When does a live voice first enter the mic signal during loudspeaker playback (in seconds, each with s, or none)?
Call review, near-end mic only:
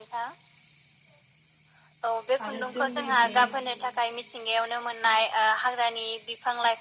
2.4 s